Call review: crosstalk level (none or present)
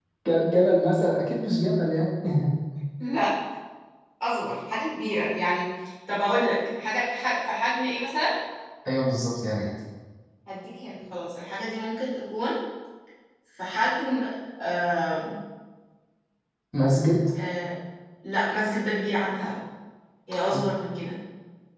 none